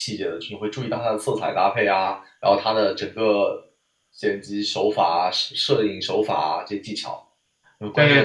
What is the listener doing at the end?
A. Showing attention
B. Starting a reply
B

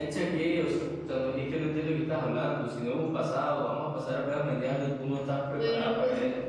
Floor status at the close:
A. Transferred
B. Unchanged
A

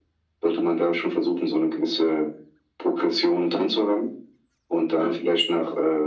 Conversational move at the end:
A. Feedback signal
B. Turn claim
A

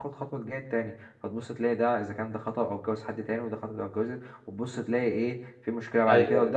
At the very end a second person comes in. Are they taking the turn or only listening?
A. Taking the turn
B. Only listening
B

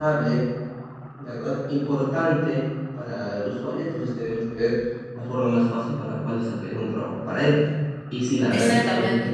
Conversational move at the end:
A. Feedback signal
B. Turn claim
A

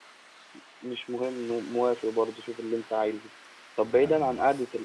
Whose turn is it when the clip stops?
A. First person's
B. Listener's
A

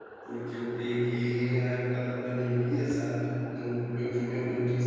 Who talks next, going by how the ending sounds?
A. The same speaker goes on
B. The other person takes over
A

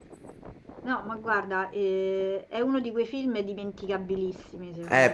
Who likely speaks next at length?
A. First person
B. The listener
B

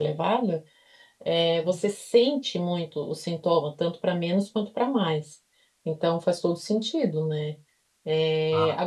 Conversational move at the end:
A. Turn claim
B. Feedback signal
B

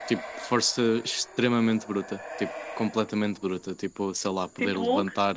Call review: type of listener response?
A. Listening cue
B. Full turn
A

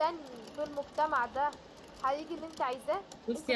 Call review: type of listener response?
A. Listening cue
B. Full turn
B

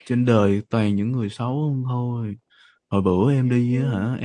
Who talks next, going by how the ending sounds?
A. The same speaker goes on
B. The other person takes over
A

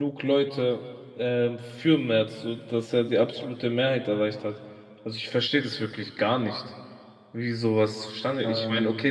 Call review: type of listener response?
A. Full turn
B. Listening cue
B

